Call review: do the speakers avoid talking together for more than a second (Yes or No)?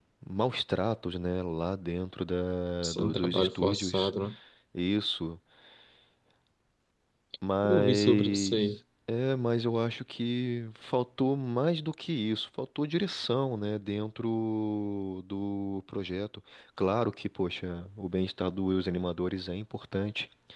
No